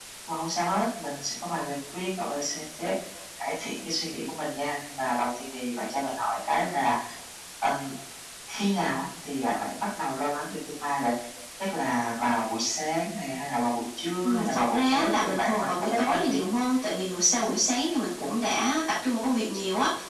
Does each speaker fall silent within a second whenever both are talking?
No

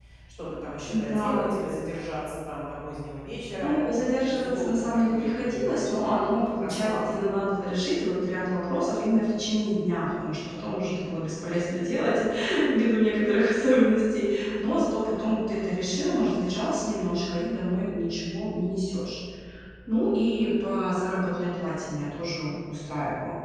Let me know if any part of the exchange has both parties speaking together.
Yes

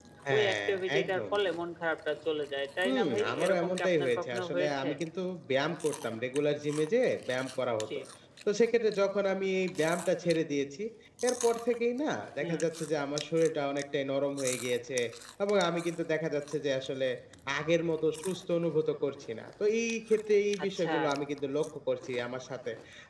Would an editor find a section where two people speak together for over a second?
Yes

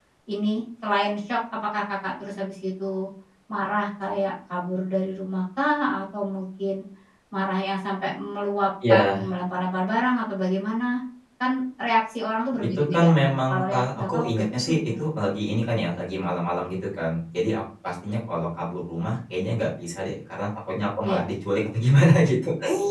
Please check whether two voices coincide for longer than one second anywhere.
Yes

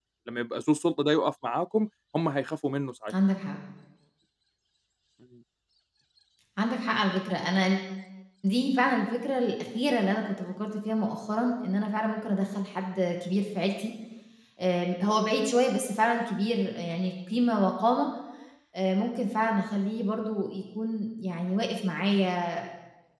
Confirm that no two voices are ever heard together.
Yes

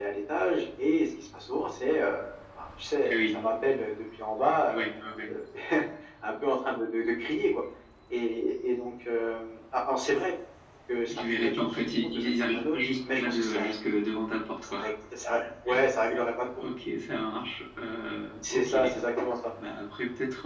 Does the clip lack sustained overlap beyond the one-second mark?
No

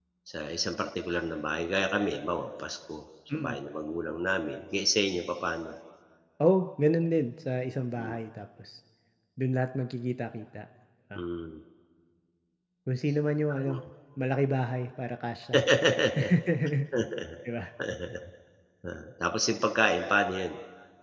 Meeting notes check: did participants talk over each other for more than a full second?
No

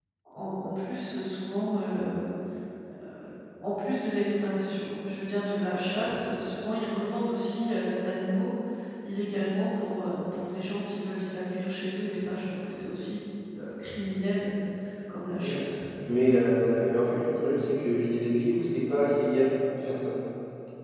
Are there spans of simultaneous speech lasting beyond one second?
No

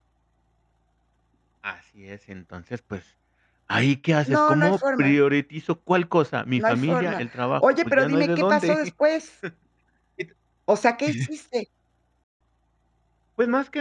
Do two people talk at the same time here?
Yes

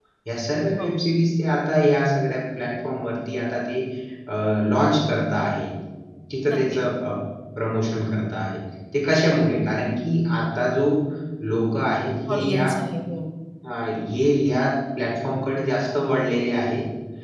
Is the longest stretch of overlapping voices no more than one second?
Yes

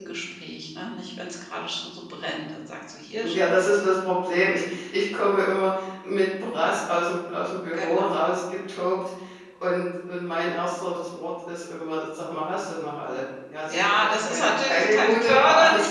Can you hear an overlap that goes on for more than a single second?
Yes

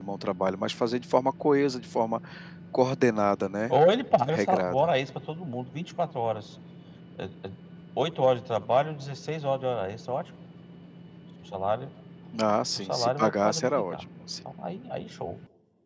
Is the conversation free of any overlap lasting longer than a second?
No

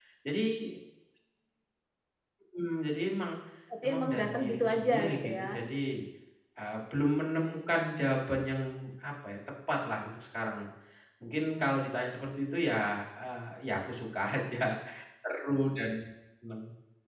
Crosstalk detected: Yes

